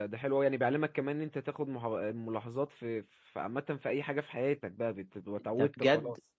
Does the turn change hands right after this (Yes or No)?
Yes